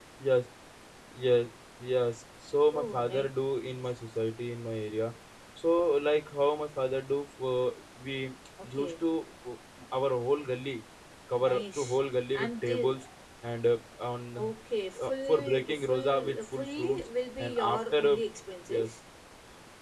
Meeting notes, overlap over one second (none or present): present